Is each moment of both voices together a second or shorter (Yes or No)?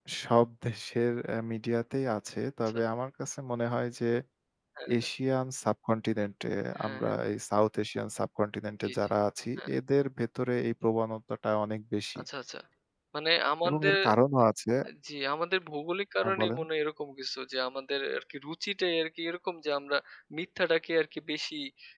Yes